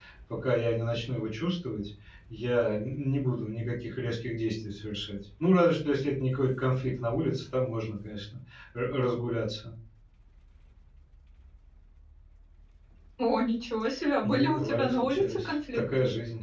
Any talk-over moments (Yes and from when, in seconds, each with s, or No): Yes, from 14.2 s